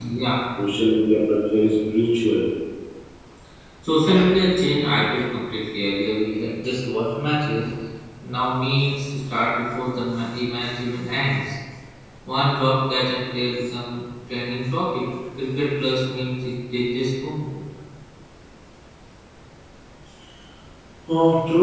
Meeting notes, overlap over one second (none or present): none